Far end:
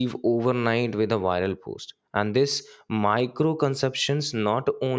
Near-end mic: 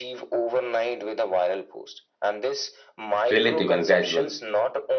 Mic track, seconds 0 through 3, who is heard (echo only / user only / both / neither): echo only